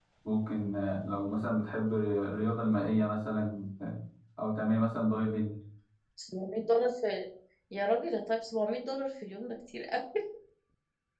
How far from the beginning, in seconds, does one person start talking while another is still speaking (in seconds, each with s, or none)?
none